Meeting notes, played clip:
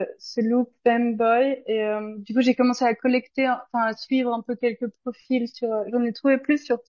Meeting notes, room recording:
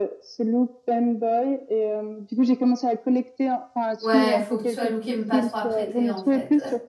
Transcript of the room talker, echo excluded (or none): Ouais, faut que tu sois looké, mais pas trop apprêté, en fait.